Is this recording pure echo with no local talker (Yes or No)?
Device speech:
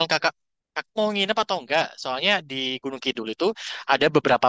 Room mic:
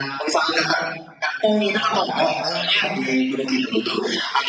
No